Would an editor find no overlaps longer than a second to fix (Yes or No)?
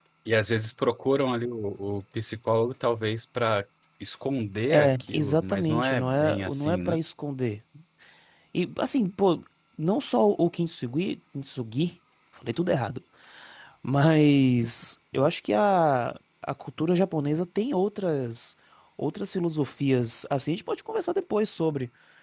No